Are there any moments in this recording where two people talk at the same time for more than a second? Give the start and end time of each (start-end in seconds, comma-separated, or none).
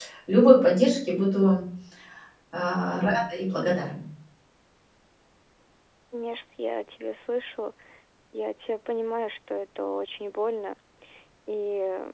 none